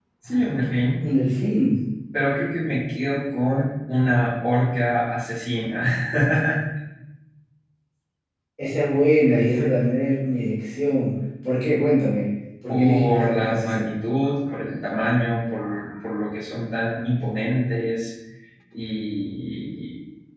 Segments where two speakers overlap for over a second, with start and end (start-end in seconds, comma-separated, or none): 12.7-13.9